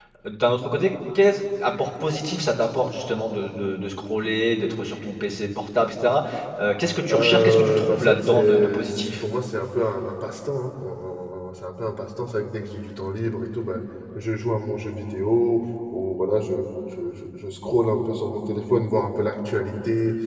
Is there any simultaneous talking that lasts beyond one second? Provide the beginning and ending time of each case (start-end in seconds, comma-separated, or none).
7.1-9.2